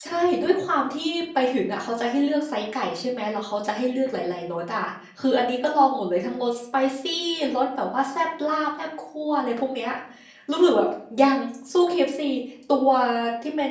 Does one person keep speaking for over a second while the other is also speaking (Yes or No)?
No